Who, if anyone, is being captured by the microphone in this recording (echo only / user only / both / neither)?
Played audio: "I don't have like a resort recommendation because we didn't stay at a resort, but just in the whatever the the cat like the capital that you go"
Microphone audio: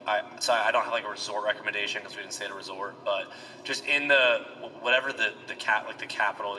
echo only